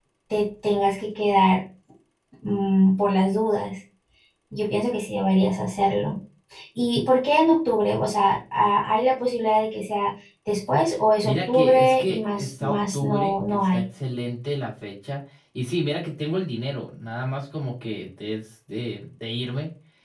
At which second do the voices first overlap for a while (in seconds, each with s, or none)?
11.2 s